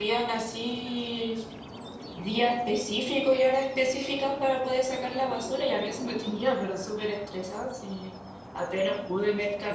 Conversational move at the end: listening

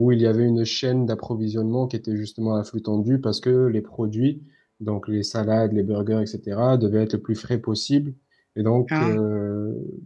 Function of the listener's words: listening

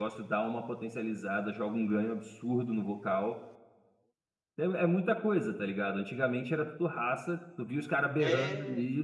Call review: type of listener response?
listening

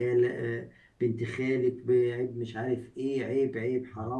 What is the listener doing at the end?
listening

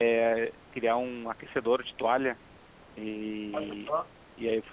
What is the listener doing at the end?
listening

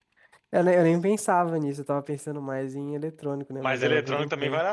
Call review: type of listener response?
taking over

